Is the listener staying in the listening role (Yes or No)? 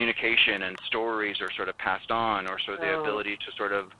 Yes